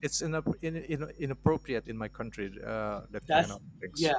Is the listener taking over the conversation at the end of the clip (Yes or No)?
Yes